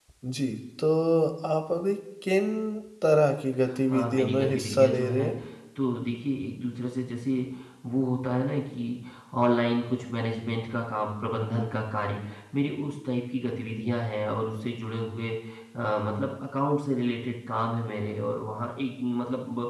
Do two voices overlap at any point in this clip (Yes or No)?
Yes